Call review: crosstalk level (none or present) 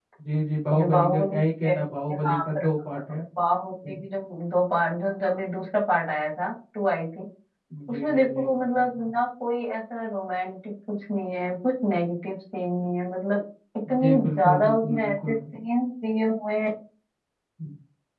present